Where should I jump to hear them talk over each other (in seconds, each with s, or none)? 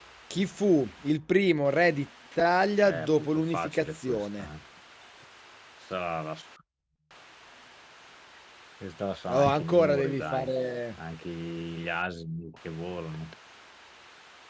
2.8 s